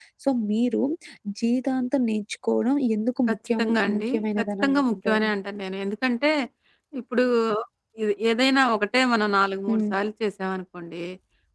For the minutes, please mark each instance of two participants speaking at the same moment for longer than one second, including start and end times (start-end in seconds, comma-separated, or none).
3.3-5.3